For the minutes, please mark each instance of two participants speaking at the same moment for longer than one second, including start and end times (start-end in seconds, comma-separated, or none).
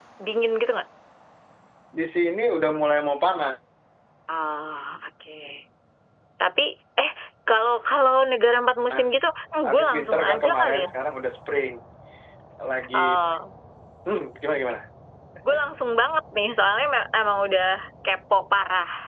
9.6-10.9